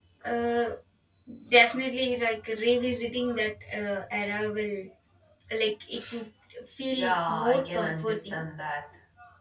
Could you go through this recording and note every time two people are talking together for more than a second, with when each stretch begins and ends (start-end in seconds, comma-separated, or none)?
7.0-8.4